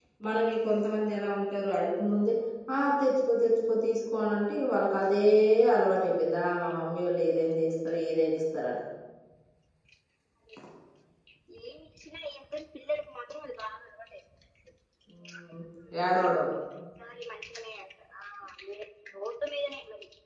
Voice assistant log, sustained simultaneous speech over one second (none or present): none